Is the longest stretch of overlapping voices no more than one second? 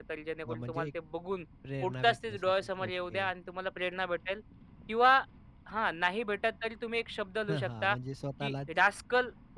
No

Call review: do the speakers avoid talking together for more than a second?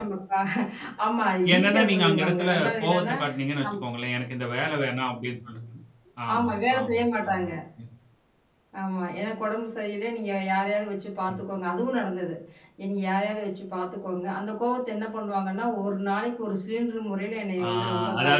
No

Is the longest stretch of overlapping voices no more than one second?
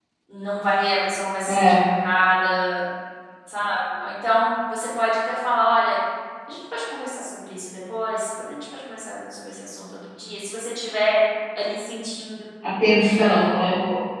Yes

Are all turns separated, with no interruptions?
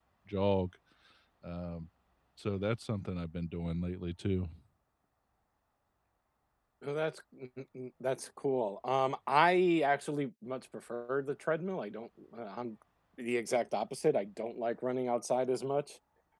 Yes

